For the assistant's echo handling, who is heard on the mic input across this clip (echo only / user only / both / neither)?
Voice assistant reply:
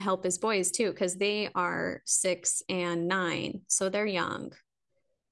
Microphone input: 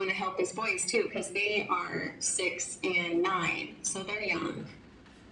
echo only